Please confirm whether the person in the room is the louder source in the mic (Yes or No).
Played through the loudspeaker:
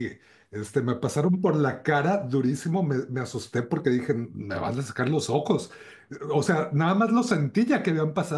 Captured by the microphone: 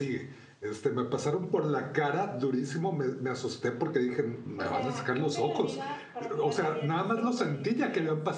No